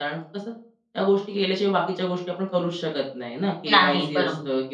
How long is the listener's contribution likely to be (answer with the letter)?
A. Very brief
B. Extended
A